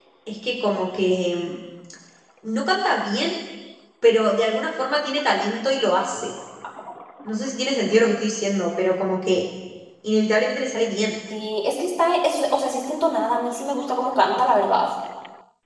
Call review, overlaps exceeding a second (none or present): none